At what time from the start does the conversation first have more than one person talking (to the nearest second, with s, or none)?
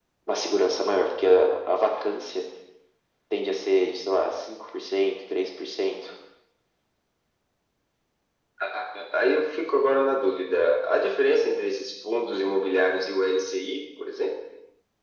none